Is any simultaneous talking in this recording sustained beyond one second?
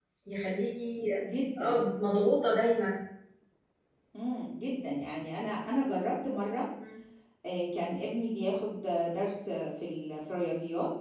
No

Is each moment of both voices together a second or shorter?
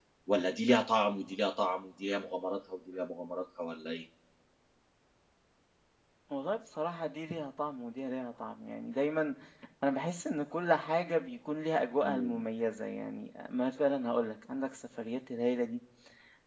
Yes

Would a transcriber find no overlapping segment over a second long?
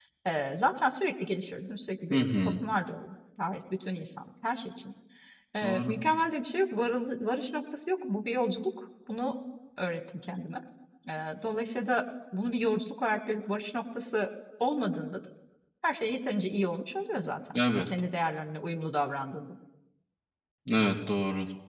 Yes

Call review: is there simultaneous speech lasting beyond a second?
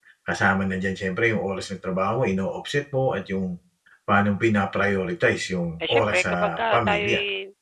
Yes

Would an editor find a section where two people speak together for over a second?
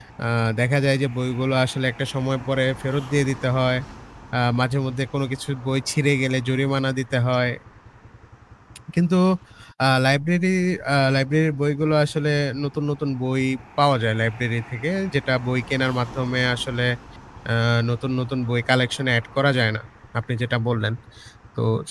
No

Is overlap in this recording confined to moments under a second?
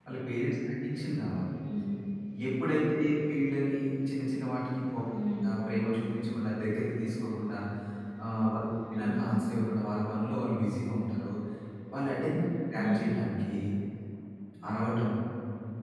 Yes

